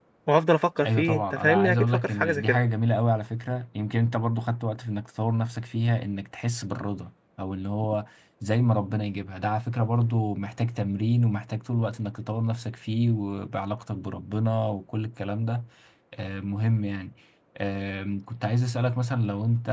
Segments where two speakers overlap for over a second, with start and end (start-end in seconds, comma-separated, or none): 0.8-2.6